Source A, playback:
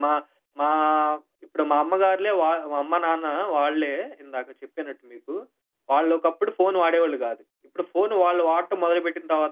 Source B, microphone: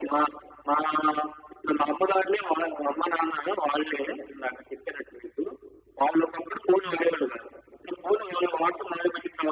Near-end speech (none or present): none